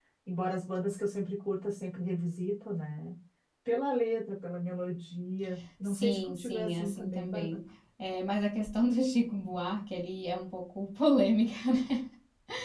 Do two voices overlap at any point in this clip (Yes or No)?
Yes